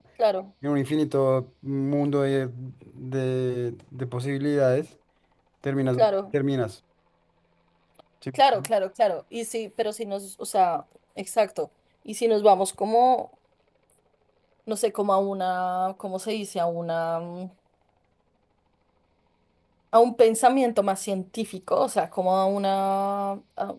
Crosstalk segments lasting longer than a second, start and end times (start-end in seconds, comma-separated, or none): none